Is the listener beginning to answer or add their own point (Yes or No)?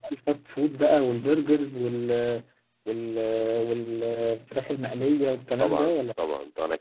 Yes